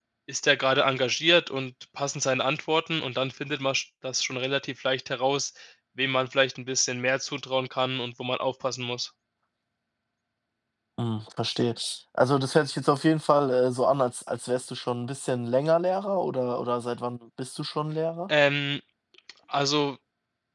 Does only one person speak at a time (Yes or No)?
Yes